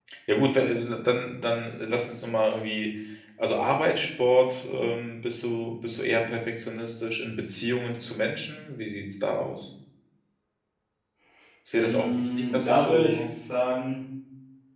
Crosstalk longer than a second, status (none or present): present